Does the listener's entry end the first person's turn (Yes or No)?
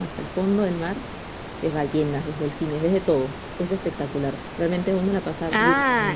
Yes